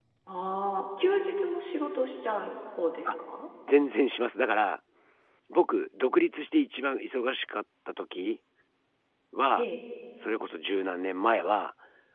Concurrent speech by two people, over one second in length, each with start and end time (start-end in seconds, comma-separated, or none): none